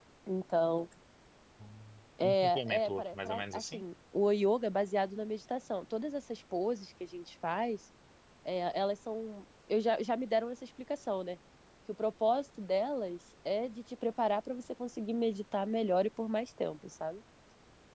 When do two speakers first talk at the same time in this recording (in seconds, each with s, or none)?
2.2 s